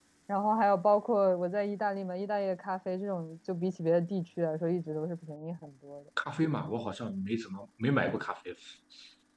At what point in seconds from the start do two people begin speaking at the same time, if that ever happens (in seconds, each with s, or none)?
none